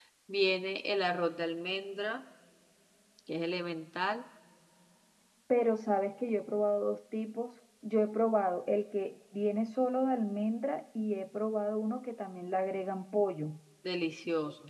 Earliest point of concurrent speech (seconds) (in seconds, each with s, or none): none